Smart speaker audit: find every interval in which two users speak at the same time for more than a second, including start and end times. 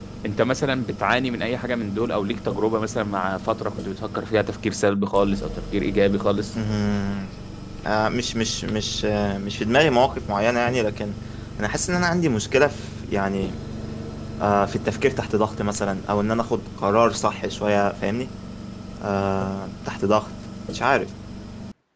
none

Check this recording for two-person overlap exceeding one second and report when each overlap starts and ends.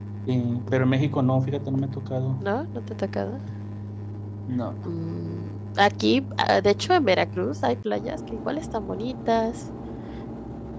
none

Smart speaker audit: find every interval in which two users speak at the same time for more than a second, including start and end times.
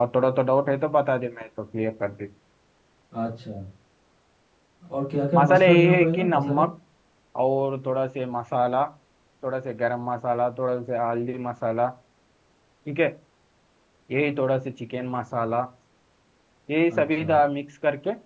5.4-6.7

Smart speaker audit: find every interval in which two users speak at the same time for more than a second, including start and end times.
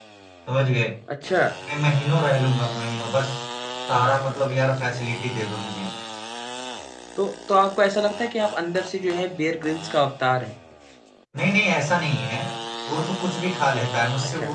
none

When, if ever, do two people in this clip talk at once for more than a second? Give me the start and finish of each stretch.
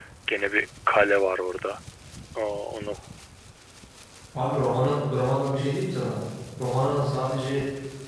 none

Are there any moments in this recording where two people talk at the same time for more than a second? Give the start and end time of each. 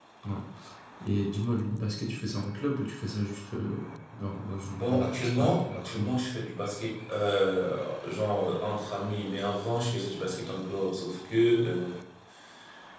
4.7-6.1

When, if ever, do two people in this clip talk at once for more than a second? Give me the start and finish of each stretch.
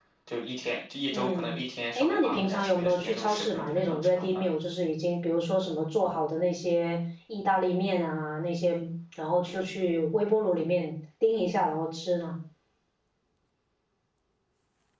2.0-4.2

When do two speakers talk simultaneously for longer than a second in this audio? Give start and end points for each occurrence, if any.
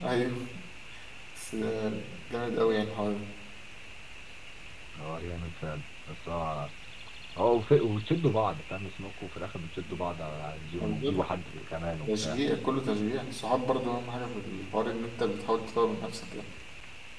none

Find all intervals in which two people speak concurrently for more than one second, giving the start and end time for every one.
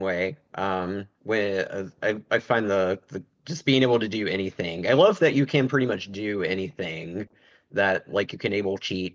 none

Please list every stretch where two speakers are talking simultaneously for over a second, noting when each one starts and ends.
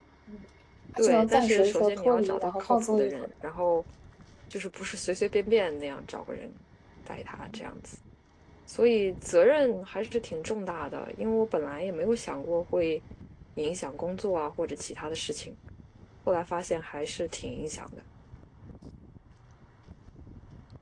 1.0-3.1

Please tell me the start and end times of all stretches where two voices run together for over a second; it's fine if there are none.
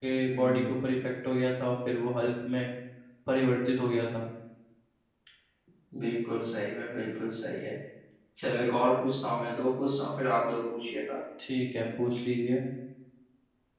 none

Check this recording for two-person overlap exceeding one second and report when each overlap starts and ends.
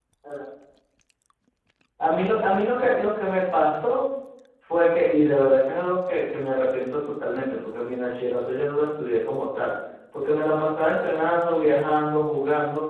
none

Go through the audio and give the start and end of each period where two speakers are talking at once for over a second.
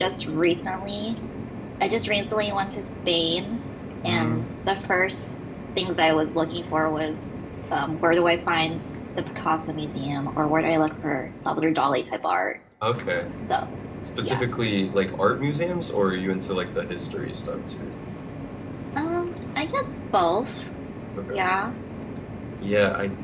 none

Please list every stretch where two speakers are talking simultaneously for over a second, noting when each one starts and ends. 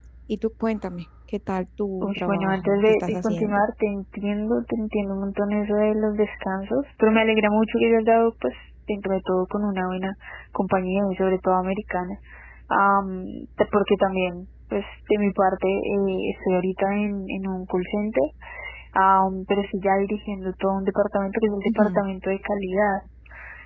2.0-3.6

